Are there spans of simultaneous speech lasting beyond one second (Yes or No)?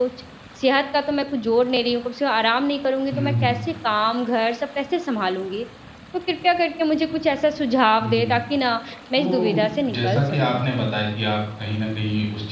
Yes